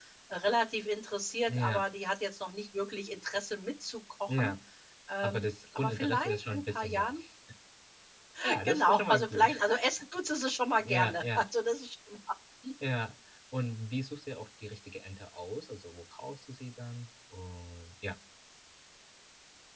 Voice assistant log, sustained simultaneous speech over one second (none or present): present